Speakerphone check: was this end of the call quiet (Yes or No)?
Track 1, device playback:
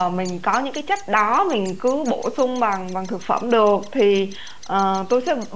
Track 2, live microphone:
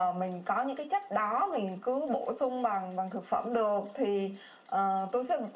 Yes